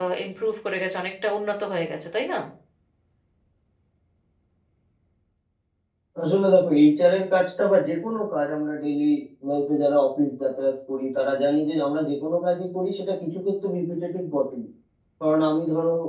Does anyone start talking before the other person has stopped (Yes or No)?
No